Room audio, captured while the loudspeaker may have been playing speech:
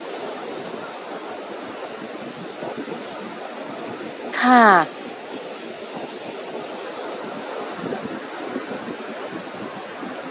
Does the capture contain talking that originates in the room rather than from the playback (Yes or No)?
Yes